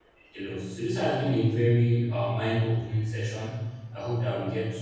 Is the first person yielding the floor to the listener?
No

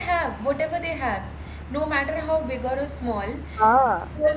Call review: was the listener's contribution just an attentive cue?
Yes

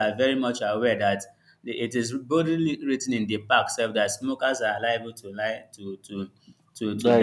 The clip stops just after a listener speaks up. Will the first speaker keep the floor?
Yes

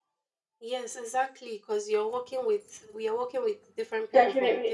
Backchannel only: No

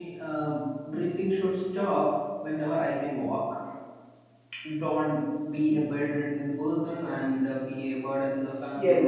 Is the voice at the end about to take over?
Yes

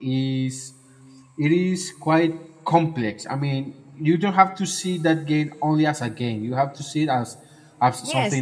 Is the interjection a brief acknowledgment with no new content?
No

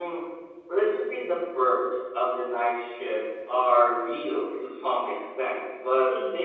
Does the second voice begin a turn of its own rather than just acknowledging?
No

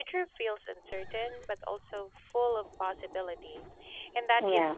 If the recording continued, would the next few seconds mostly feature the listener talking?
Yes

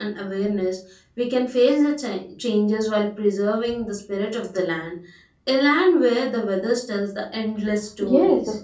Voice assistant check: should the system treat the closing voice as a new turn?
Yes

